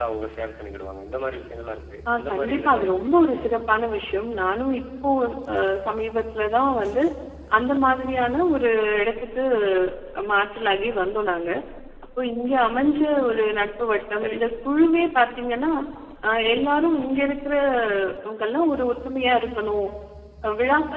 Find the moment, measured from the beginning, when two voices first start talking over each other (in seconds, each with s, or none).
2.1 s